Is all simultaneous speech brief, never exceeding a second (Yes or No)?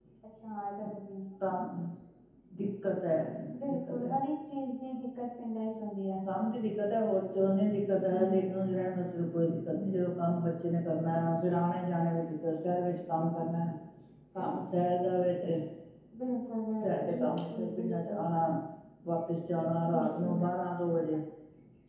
No